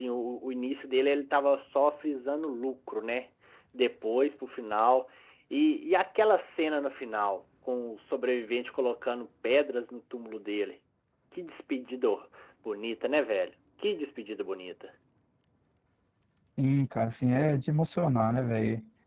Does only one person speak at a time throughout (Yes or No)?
Yes